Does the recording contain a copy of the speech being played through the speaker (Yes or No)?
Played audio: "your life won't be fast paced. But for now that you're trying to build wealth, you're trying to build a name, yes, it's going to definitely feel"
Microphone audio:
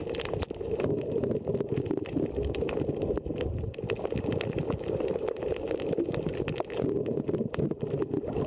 No